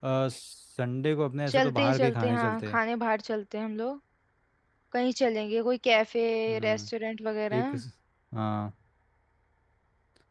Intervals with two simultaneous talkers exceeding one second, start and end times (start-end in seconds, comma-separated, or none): 1.5-2.8